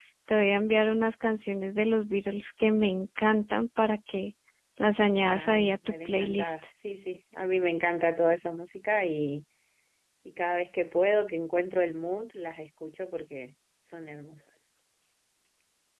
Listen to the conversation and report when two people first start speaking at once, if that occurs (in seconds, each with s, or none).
5.2 s